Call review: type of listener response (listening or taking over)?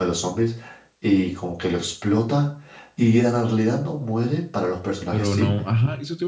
taking over